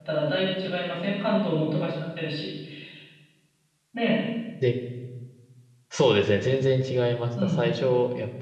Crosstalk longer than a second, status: none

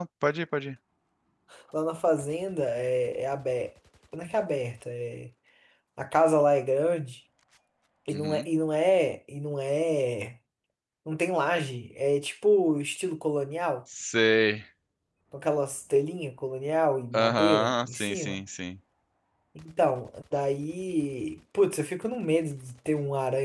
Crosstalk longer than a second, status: present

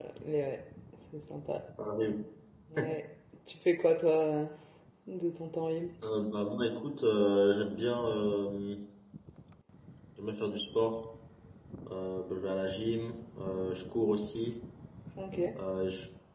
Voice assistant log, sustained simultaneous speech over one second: none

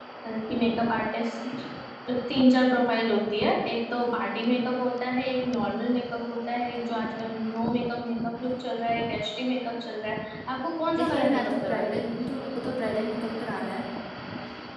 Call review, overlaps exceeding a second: present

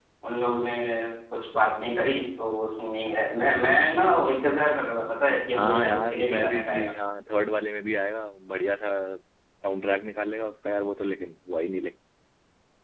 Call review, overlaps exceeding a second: present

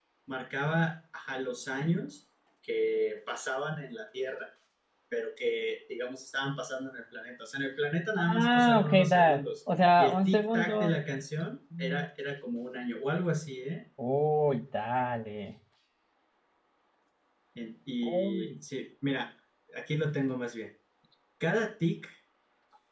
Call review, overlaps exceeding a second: present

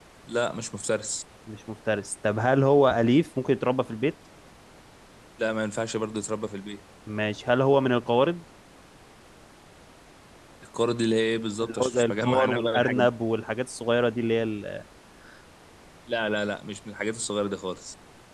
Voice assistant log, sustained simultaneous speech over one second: present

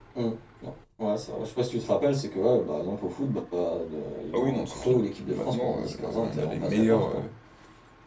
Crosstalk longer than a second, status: present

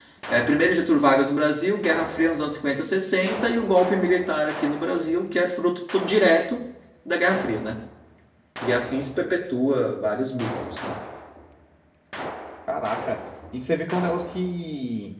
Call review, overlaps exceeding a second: none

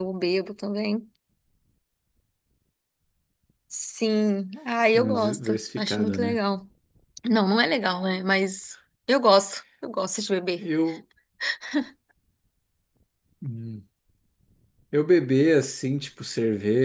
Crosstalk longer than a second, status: present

